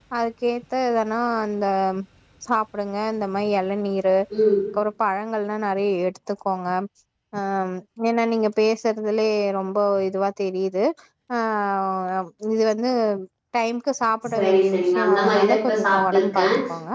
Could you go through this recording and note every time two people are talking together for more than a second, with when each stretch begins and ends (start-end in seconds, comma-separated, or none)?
14.3-16.4